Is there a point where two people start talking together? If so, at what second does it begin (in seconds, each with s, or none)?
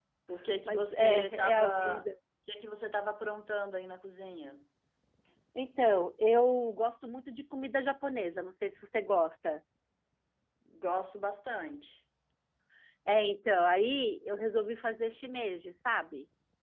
0.6 s